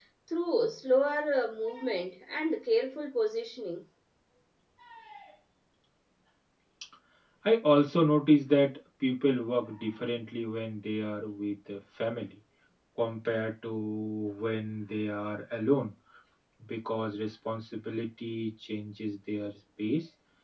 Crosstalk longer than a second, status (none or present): none